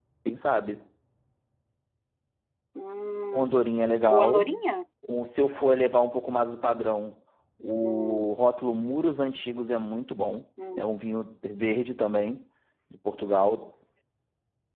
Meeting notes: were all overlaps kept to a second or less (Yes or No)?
Yes